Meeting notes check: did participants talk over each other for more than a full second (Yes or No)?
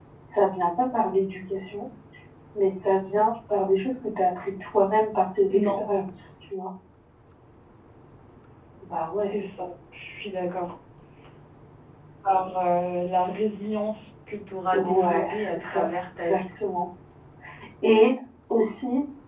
Yes